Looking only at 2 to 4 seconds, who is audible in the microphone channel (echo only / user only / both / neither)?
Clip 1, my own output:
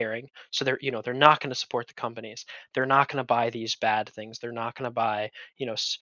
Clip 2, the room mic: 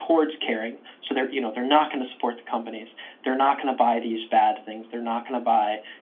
echo only